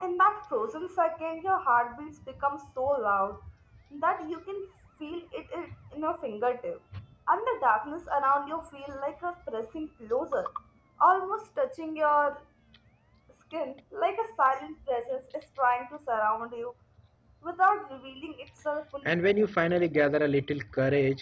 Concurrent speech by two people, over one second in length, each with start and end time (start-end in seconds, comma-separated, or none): none